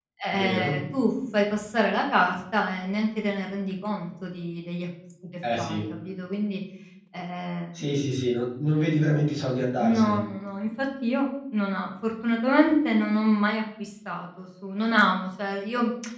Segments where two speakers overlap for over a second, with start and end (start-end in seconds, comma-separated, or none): none